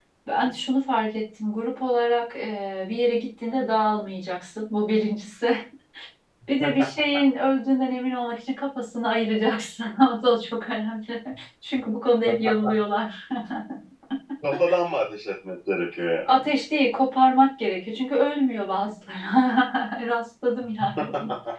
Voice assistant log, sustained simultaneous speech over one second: none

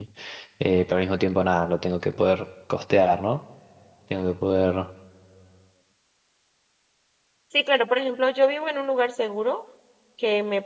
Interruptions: none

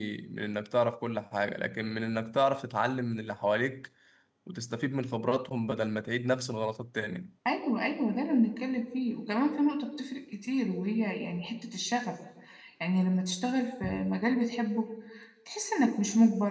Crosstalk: none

